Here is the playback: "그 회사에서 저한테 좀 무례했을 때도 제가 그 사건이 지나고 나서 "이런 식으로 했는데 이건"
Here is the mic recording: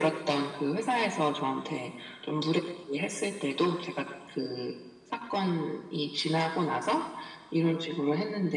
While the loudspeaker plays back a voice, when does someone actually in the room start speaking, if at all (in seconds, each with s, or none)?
none